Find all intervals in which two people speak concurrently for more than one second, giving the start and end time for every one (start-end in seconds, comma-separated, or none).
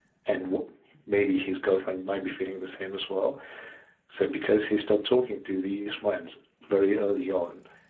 none